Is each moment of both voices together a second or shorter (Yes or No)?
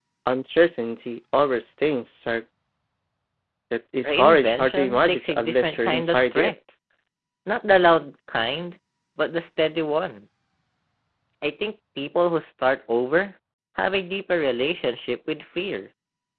No